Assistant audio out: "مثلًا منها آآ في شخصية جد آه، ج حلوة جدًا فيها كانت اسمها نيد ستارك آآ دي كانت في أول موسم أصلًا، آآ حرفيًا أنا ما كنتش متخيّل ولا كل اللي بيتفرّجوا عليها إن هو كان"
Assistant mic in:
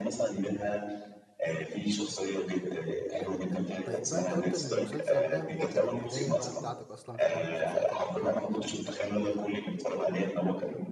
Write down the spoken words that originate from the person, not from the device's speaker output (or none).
جامد ده. طيب بقى أنت قُلت إن المسلسل ده هو كان البداية بقى بتاعتك أصلًا في عالم المسلسلات الأجنبية وكده و